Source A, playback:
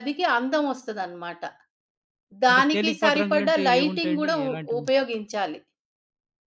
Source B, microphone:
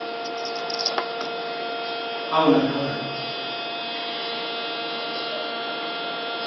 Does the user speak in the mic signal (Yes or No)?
Yes